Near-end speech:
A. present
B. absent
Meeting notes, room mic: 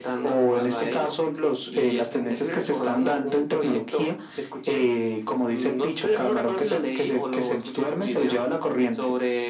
B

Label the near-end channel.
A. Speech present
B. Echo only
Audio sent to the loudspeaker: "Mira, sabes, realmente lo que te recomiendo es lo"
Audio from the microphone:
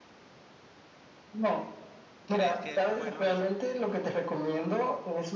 A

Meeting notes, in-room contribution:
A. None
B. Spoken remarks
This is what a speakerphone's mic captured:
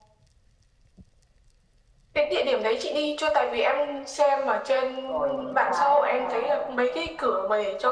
B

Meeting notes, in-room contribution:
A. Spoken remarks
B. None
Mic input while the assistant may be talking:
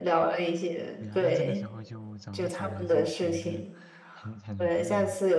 A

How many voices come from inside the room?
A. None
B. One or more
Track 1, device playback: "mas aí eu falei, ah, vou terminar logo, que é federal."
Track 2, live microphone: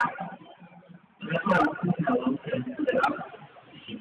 A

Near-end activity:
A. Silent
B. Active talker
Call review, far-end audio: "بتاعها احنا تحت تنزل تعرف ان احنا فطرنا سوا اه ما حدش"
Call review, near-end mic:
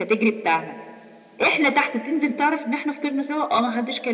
A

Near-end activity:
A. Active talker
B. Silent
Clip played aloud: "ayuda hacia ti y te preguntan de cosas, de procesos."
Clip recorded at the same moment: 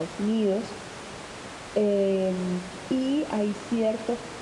A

